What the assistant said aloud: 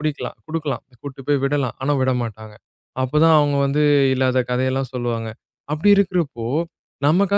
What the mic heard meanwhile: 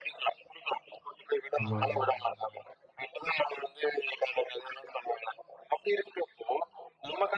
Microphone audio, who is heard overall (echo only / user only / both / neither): both